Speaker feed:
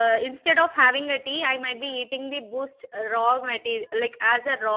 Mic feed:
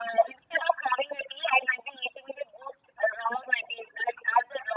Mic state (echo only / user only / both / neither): echo only